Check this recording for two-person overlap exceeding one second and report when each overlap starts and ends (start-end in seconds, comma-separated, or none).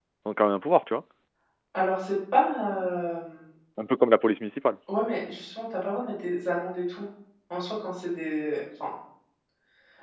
none